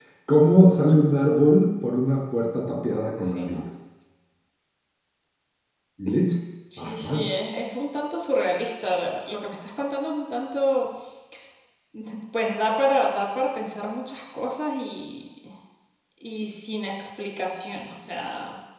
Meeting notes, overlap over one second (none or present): none